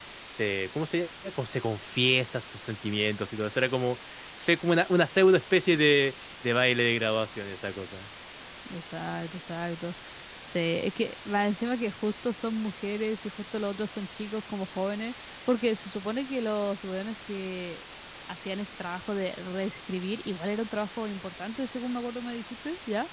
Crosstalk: none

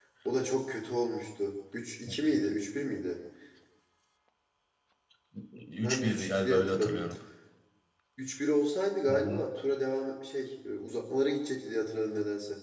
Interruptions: present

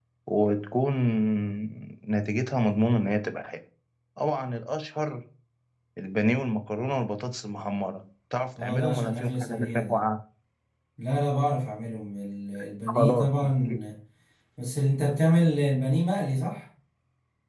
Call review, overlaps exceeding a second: present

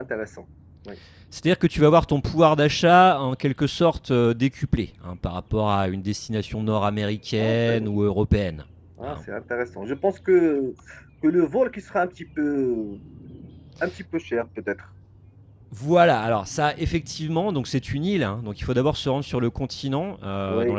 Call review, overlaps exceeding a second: none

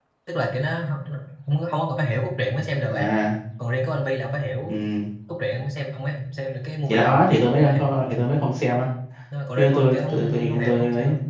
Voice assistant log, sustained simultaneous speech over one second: present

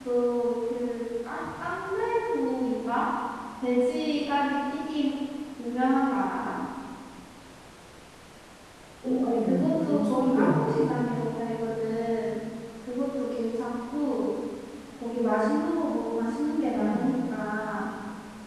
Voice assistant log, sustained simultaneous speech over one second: present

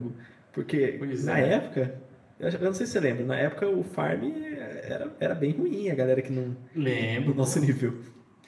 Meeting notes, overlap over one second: none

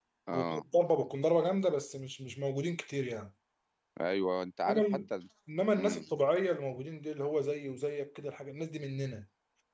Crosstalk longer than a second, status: none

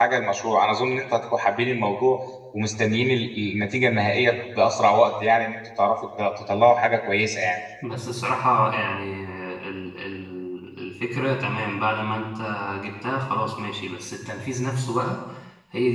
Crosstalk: none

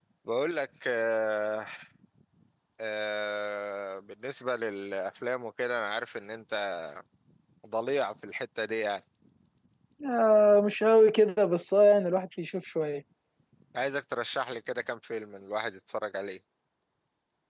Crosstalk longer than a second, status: none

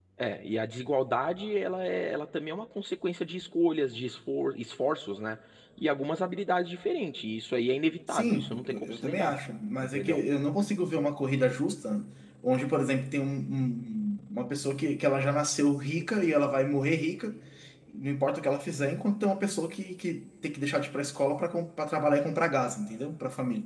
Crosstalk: present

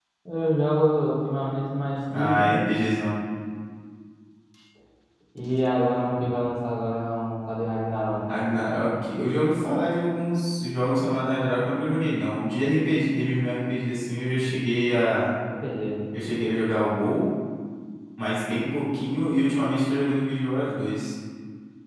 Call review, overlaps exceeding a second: none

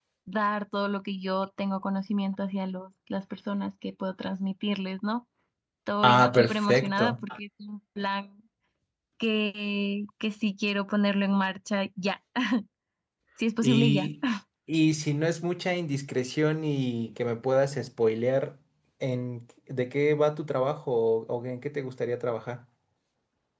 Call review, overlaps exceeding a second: present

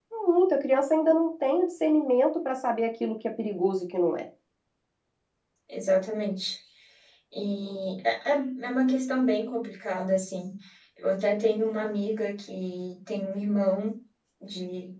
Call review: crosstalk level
none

